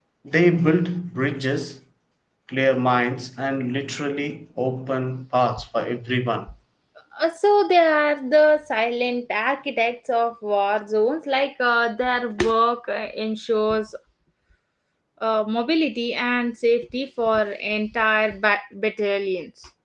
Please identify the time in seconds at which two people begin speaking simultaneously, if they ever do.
none

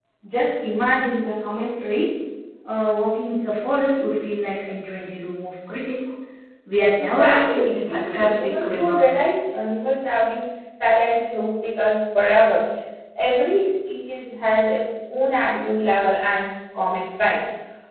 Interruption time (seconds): 7.0 s

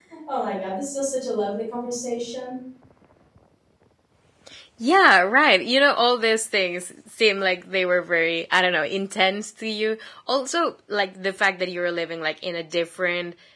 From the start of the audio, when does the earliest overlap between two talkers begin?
none

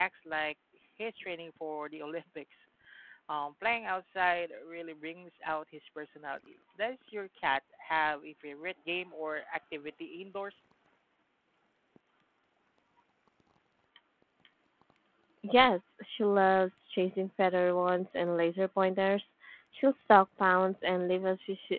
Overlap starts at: none

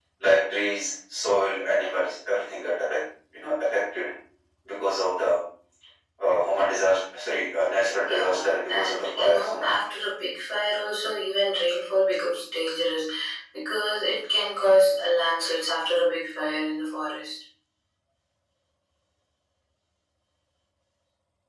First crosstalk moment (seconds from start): 8.0 s

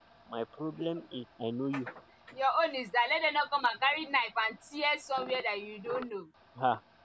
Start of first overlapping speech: none

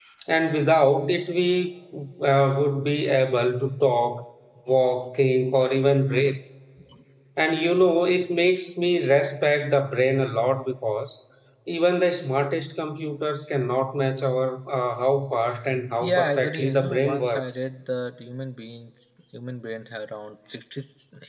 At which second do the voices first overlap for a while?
16.0 s

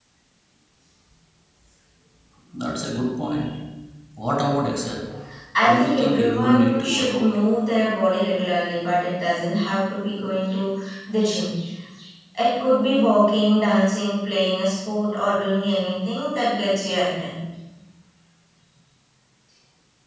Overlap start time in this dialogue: 5.6 s

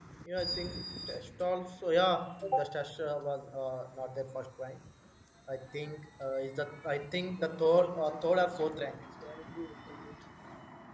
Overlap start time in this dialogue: 7.4 s

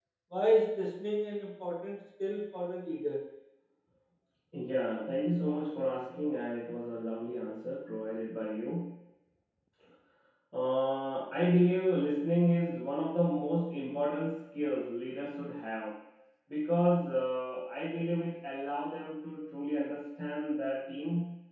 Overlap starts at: none

